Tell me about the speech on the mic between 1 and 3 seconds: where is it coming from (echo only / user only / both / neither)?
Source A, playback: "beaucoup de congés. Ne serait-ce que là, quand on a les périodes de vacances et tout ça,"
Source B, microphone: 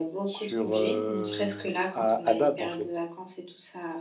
both